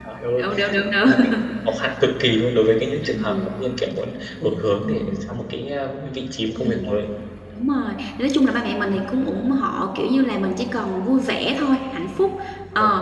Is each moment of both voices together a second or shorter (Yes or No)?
Yes